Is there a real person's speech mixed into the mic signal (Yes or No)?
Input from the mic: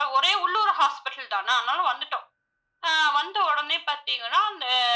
No